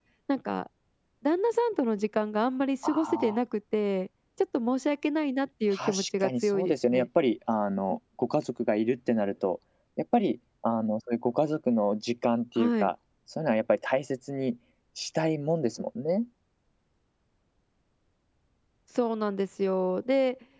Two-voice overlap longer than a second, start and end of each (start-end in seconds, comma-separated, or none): 5.7-7.1